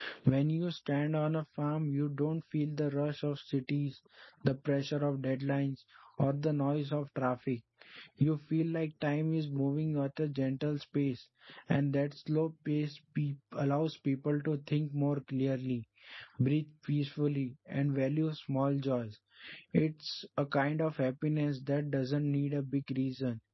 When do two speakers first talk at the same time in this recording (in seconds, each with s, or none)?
none